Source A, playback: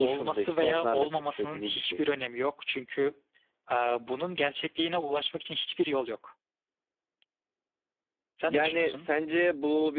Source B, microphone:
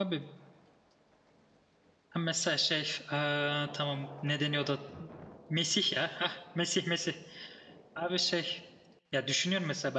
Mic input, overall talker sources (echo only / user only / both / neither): user only